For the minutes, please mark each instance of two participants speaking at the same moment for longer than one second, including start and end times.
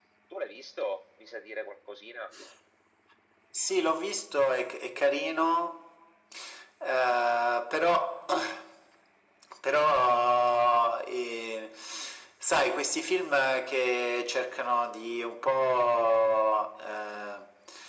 none

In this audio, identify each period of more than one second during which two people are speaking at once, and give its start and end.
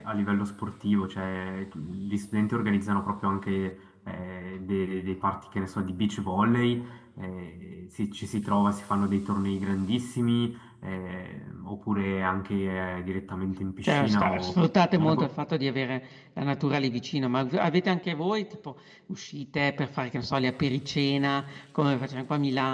13.8-15.3

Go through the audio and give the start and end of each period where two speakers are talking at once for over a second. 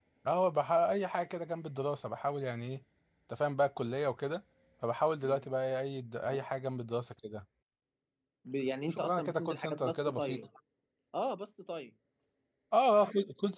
8.9-10.4

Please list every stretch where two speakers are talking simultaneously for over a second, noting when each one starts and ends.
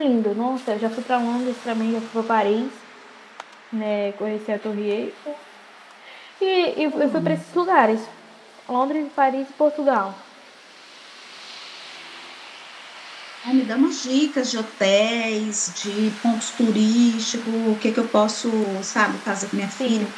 none

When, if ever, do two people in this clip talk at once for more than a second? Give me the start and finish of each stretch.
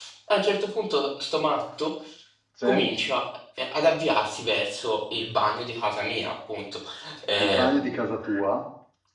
none

